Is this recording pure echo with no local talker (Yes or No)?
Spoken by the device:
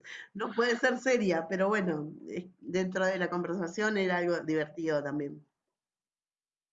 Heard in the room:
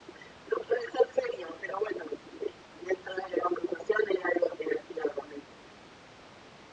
Yes